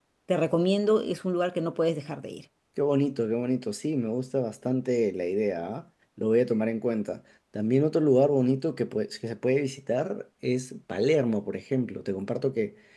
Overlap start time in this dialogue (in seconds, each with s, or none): none